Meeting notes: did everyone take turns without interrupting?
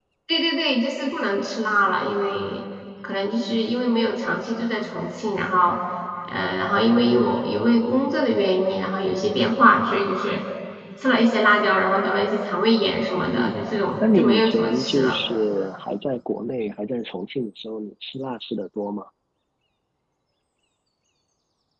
No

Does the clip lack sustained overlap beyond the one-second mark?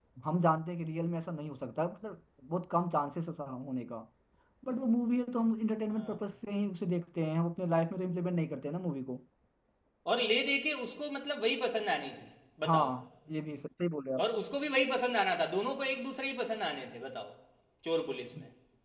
Yes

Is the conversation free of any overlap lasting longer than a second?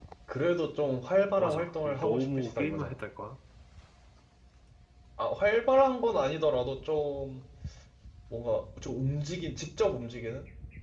No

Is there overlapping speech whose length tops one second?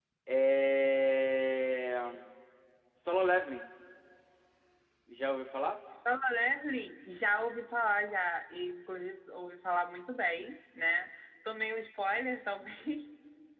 No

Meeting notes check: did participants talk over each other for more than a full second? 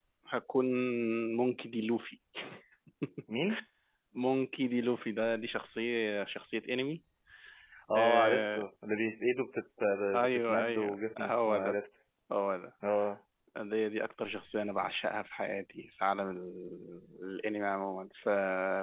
Yes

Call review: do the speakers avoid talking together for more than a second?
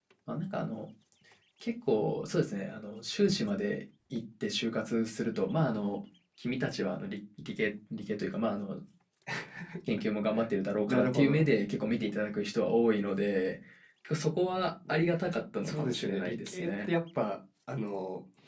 No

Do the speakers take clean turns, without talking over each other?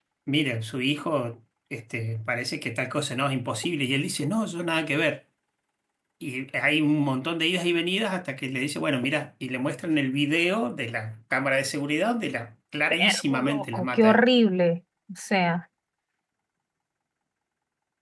No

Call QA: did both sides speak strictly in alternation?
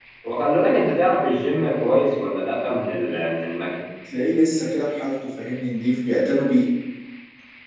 Yes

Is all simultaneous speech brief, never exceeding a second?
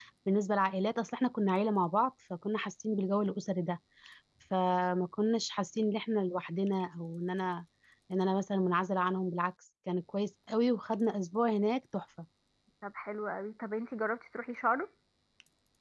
Yes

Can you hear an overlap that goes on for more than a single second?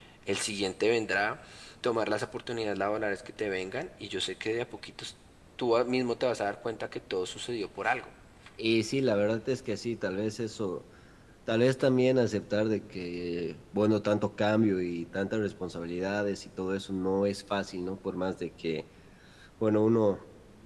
No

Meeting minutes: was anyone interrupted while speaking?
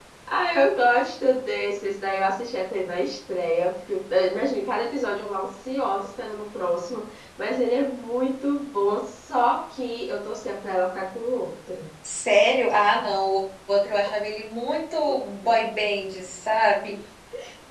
No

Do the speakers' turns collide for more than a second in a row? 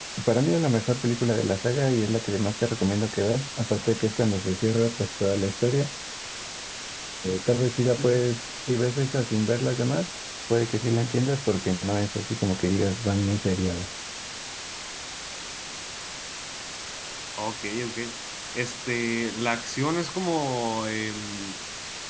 No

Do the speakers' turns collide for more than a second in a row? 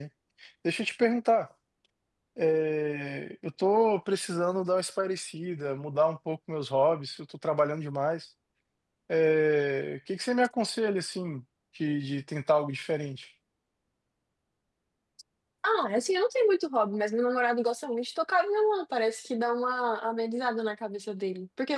No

